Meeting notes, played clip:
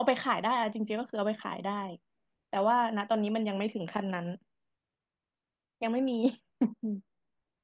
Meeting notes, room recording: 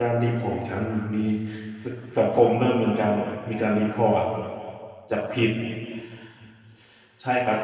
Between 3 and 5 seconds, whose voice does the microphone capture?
user only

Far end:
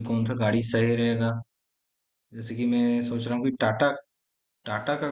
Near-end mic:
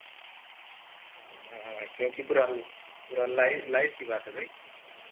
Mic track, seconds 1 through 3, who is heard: user only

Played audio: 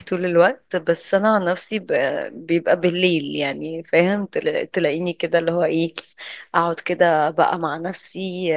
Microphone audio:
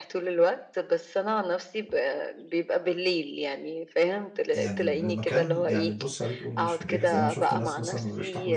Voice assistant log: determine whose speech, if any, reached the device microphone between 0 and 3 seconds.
echo only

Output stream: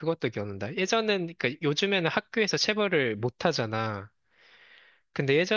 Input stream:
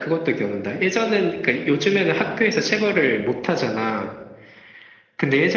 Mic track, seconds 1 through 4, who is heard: echo only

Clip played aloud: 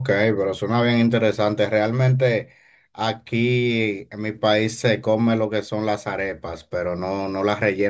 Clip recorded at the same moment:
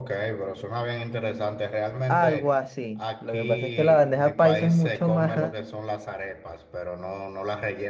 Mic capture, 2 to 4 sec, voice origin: both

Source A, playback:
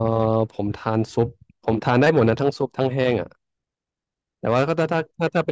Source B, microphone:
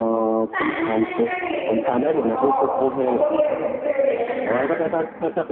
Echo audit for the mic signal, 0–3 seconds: both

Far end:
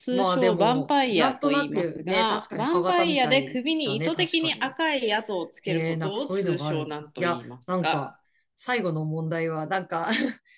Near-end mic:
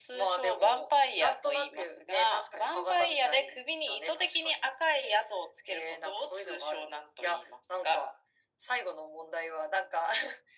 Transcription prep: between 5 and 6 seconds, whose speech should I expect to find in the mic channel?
echo only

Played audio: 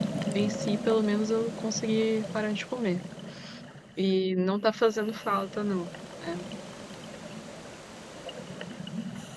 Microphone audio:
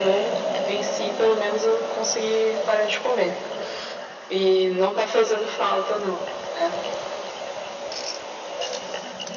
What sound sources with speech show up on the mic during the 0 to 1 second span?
echo only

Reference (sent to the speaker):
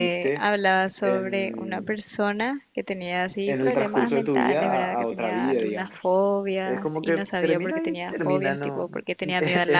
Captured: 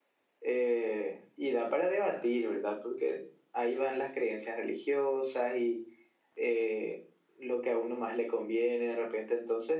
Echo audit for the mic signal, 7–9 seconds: user only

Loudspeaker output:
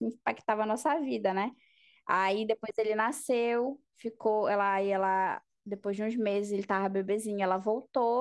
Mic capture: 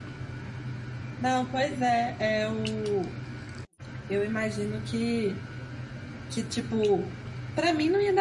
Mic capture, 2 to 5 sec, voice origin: user only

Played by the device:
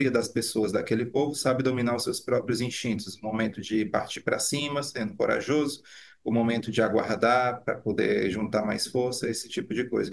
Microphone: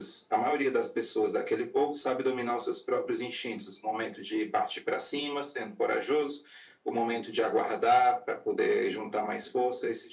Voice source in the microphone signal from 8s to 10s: echo only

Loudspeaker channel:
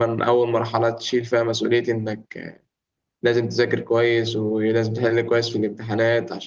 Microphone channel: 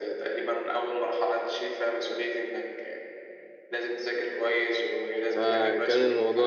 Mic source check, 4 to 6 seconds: both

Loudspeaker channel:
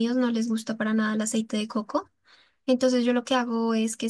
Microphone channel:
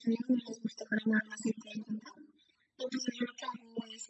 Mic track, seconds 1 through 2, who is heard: echo only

